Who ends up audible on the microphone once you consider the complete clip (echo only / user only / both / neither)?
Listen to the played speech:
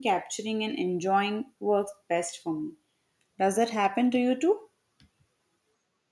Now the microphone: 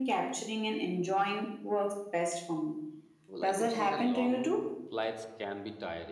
both